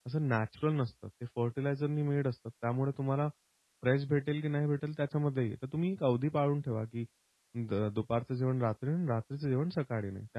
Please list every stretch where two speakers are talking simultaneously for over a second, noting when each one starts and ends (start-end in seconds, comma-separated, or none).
none